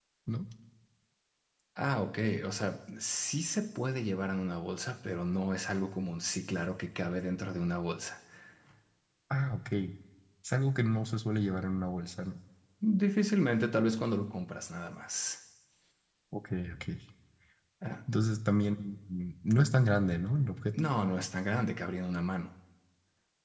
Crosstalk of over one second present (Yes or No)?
No